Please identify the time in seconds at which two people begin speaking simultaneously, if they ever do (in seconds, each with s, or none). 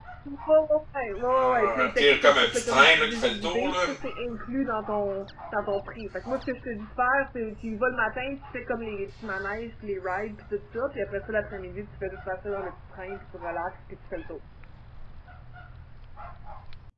1.3 s